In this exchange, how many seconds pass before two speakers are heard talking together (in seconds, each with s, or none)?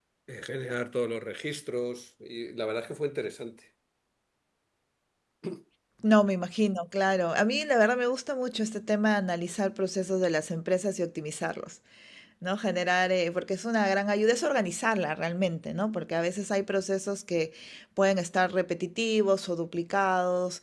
none